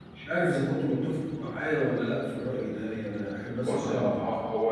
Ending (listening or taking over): taking over